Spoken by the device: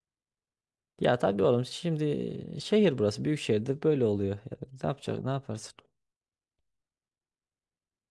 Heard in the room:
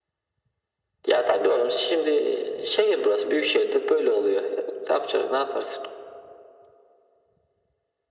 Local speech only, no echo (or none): none